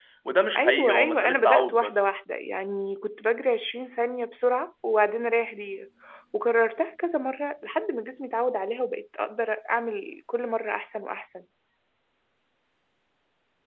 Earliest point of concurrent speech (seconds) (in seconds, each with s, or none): 0.6 s